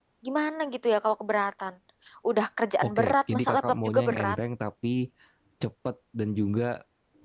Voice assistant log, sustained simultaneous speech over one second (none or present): present